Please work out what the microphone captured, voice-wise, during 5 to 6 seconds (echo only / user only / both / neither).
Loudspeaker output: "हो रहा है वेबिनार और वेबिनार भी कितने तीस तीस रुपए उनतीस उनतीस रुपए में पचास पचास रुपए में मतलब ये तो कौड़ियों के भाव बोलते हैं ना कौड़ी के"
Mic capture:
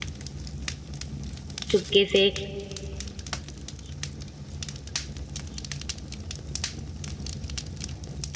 neither